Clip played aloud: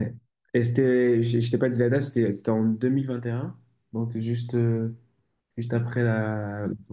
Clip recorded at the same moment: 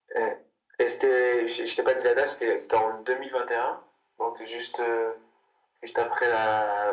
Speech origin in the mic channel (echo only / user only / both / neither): echo only